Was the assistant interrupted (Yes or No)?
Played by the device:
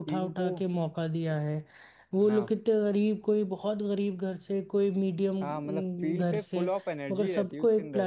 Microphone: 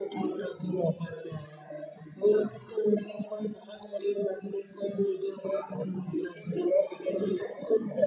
No